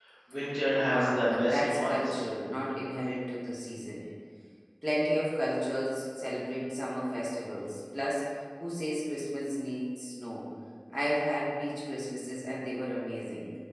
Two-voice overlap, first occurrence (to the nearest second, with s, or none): 1 s